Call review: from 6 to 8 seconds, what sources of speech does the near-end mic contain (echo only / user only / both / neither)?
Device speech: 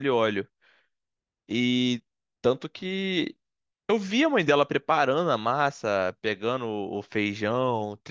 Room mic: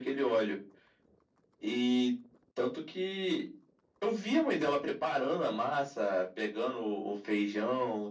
echo only